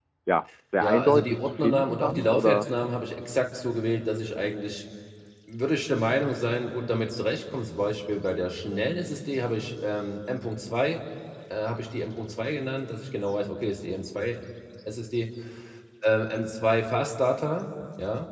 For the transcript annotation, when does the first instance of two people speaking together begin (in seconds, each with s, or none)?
0.8 s